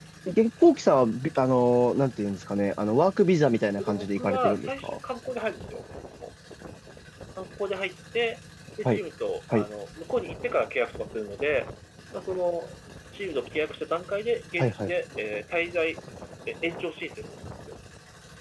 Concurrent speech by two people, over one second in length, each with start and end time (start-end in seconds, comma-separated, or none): 3.8-5.0